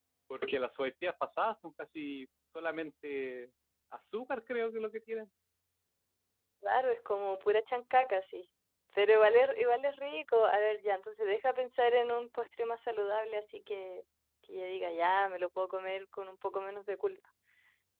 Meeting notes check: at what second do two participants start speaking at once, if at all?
none

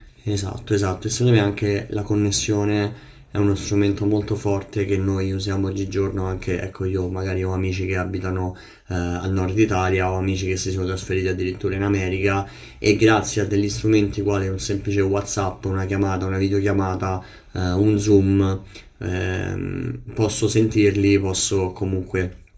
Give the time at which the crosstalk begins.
none

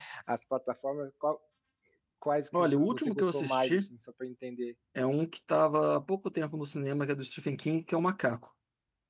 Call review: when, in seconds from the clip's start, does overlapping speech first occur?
2.6 s

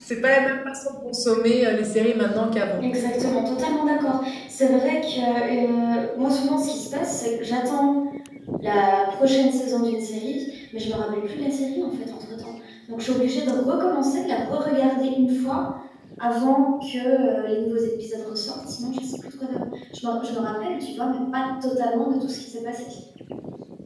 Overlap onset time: none

